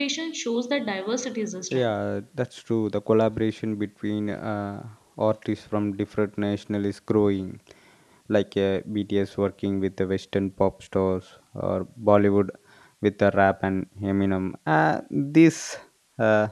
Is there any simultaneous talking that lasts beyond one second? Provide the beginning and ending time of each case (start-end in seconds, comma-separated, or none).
none